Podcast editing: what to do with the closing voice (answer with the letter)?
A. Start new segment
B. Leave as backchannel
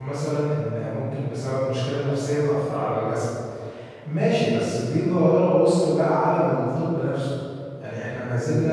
B